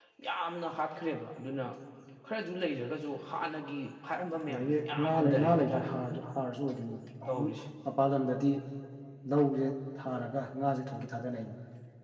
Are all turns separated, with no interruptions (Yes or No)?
No